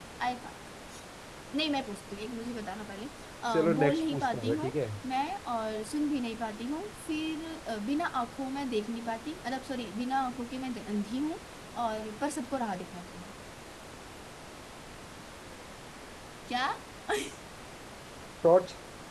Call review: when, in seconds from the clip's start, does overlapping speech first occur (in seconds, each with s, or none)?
3.5 s